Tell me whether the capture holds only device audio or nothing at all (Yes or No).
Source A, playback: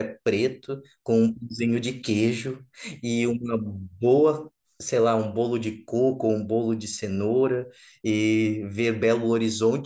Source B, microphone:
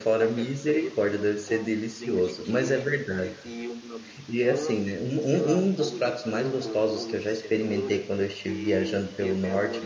No